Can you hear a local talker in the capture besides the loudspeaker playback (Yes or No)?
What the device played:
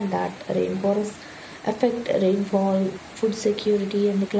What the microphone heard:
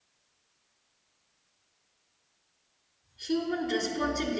Yes